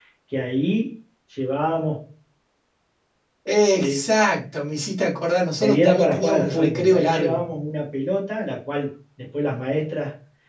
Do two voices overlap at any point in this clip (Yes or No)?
Yes